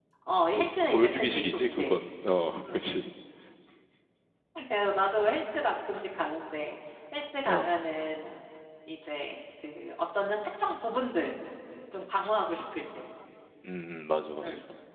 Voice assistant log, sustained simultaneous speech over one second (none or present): present